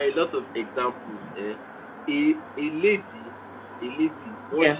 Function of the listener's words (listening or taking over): listening